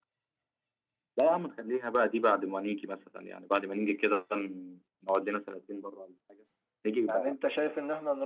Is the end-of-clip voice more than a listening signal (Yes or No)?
Yes